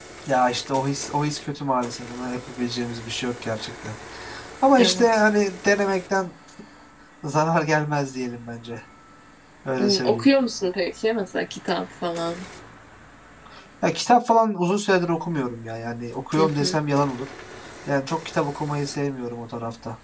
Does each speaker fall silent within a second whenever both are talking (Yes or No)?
Yes